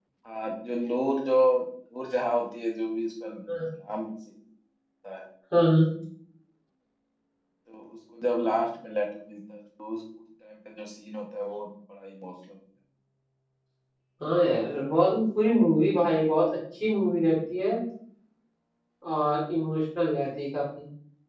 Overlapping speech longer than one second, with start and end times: none

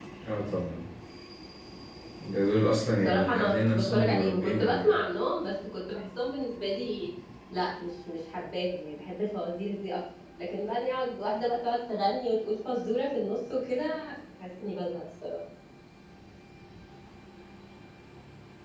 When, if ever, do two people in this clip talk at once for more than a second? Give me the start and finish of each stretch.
3.0-4.9

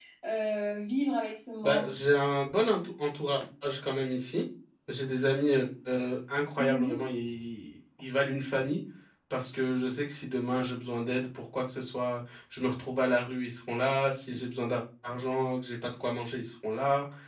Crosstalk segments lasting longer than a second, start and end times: none

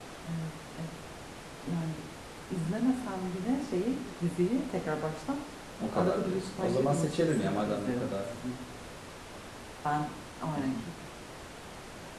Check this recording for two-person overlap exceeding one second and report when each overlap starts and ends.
5.9-8.3

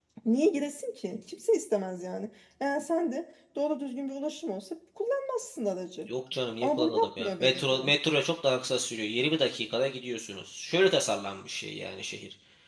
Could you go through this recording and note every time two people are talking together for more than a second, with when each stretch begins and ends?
6.6-7.9

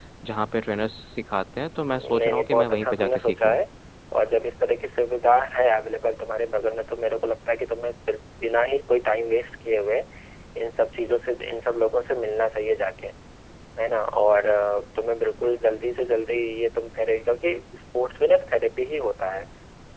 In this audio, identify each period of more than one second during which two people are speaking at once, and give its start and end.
1.9-3.6

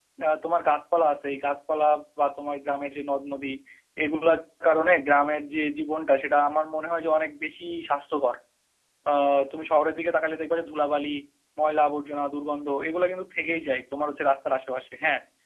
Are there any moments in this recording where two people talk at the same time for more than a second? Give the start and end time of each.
none

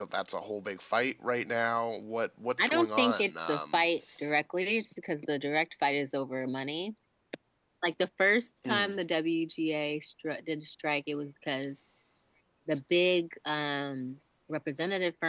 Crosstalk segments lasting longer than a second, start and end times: 2.6-3.8

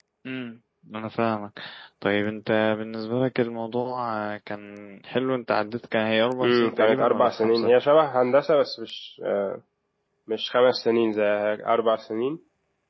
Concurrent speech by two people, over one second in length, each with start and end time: 6.4-7.7

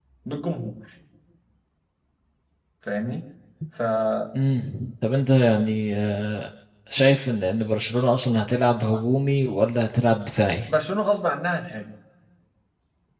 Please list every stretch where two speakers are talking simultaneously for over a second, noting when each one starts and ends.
none

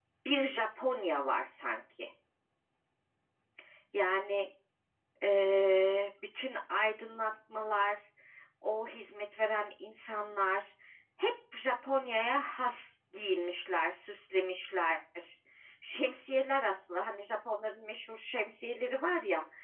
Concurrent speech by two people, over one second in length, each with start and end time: none

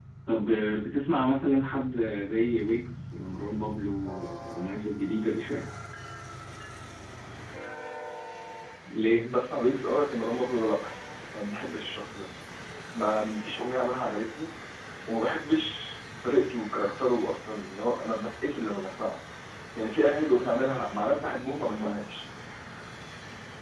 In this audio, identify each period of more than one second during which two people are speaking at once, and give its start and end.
none

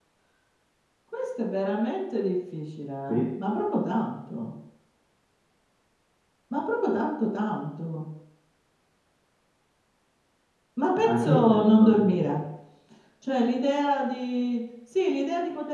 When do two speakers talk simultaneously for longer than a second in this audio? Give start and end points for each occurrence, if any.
11.1-12.3

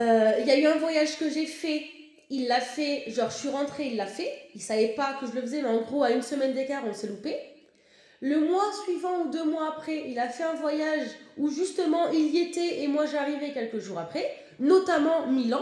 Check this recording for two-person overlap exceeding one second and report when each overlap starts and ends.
none

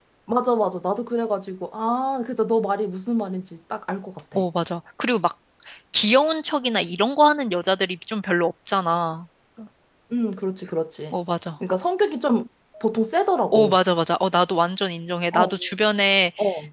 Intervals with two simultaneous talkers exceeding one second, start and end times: none

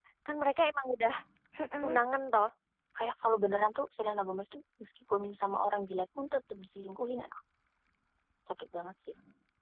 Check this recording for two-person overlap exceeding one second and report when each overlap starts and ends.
none

